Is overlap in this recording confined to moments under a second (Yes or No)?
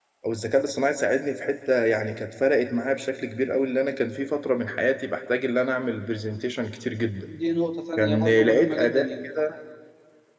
No